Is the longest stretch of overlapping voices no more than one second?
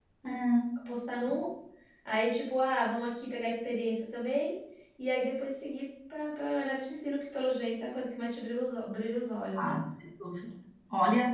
Yes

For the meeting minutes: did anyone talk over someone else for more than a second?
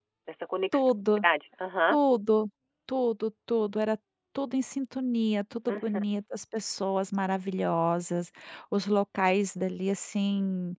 No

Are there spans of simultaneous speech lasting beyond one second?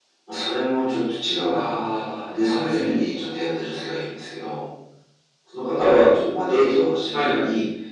Yes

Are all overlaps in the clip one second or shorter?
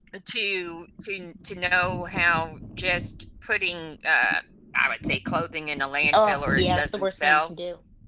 No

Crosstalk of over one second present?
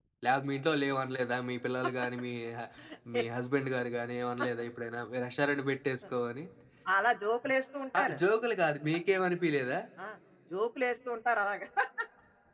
No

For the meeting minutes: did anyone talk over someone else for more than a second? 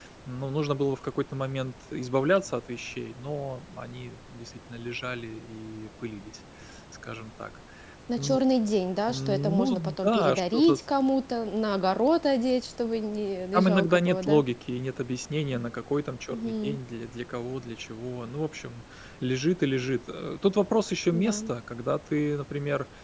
Yes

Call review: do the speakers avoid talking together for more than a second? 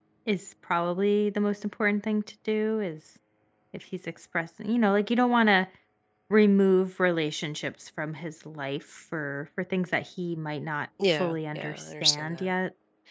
No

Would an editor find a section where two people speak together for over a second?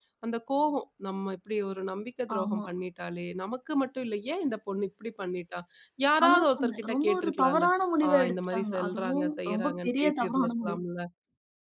Yes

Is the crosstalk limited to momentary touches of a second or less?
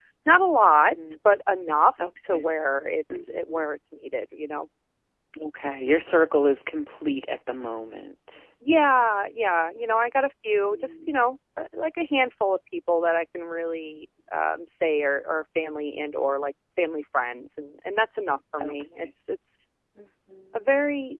Yes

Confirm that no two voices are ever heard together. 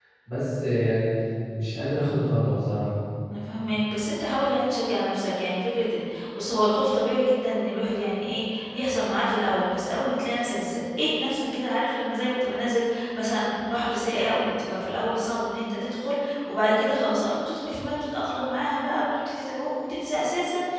Yes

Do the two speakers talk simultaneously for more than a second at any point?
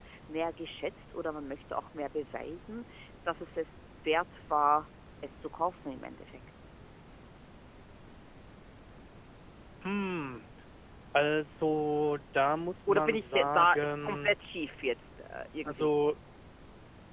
Yes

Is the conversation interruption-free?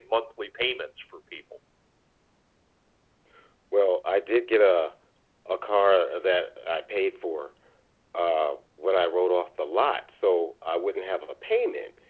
Yes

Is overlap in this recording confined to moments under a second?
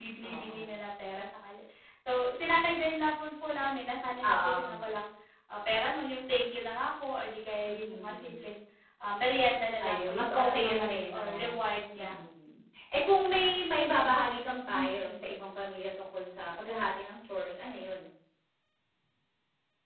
No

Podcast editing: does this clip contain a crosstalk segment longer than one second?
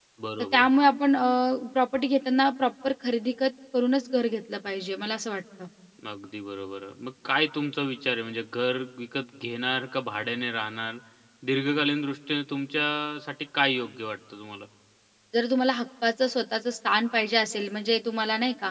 No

